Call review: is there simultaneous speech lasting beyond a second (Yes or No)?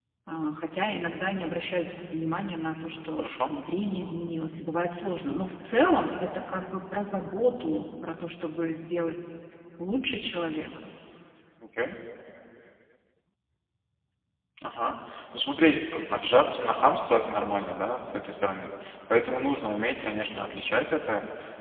No